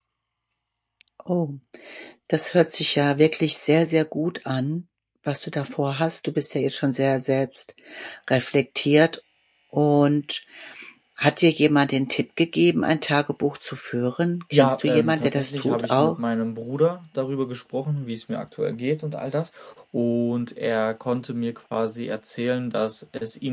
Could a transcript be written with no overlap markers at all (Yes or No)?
No